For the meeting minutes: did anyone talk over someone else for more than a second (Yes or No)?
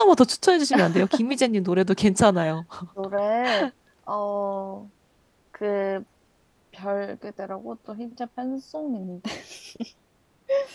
No